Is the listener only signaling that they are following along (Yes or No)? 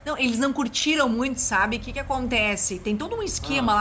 Yes